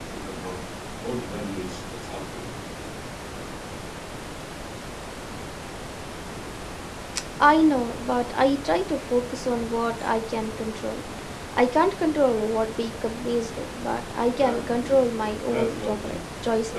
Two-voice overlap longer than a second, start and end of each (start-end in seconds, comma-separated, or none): 14.3-16.2